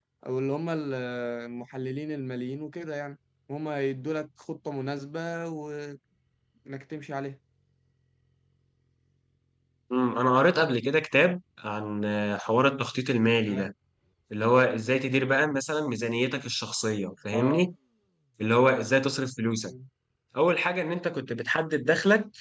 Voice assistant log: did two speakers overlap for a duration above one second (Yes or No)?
No